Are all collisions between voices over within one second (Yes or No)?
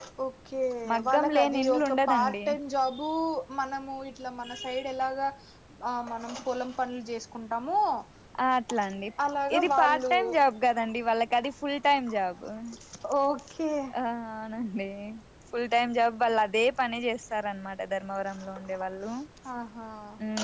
No